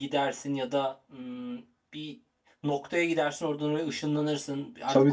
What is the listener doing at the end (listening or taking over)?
listening